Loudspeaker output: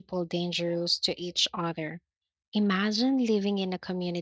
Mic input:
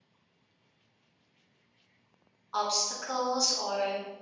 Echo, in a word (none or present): none